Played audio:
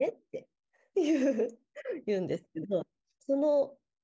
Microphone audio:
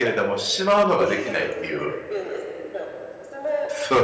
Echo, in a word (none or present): present